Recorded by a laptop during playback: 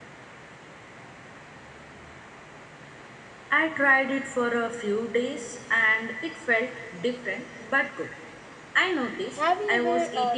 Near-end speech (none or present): present